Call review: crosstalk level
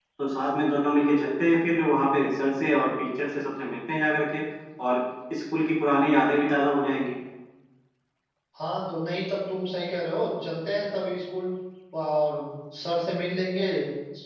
none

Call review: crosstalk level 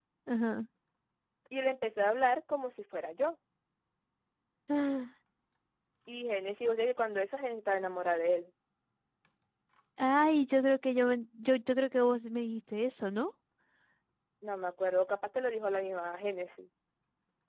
none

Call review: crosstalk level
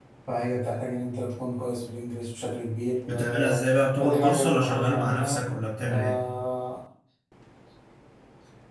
present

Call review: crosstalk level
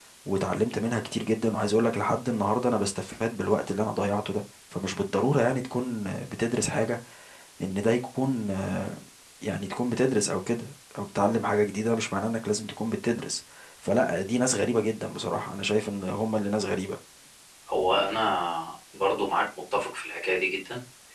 none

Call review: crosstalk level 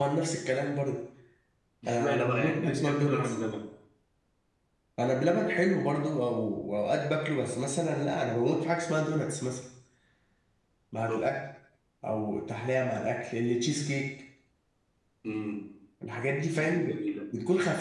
present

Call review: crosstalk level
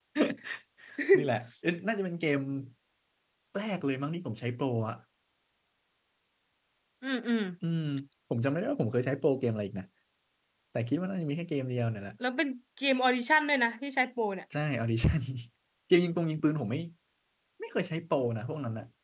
none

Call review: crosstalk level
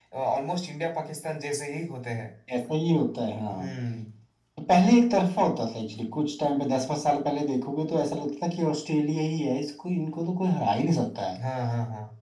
none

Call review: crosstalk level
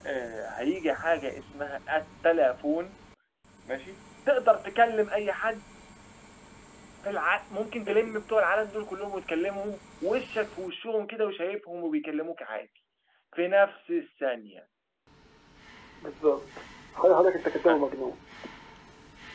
none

